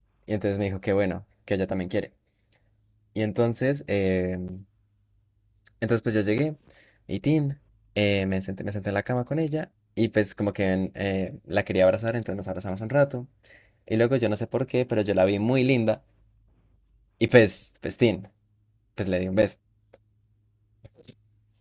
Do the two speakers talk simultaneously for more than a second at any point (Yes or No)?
No